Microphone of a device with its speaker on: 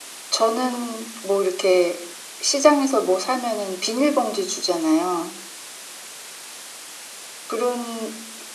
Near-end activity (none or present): none